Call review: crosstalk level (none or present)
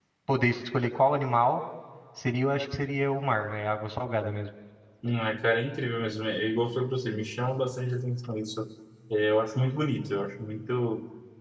none